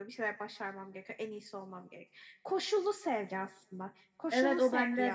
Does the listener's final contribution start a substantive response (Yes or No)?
Yes